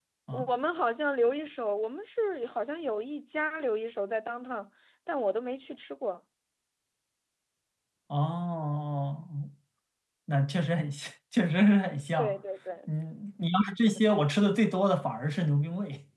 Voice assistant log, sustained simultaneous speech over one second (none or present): none